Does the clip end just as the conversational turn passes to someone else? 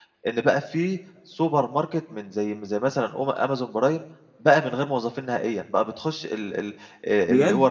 No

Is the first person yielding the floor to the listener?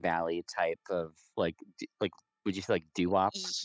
Yes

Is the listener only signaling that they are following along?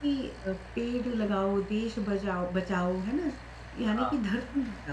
Yes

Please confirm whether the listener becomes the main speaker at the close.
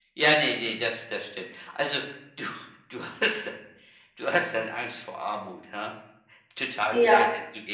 Yes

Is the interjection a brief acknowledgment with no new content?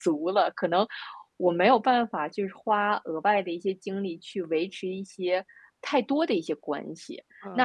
No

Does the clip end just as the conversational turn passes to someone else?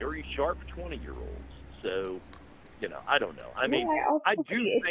Yes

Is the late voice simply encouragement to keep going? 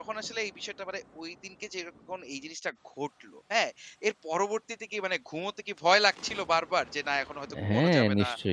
No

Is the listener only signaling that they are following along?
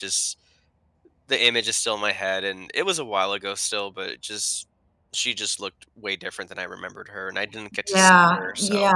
No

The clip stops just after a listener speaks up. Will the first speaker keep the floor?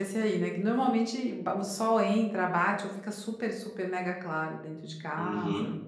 No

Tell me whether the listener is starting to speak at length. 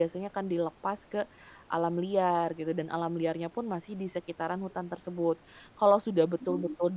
No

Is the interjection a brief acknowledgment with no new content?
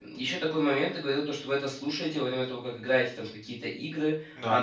Yes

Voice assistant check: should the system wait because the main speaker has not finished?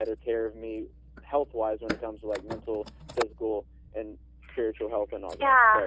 No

